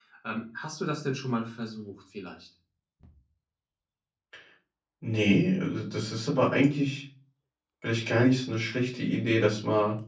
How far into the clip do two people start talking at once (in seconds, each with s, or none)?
none